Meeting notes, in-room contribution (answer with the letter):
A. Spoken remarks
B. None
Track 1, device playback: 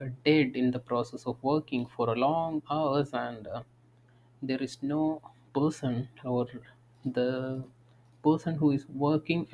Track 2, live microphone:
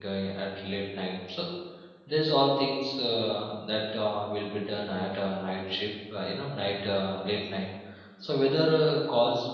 A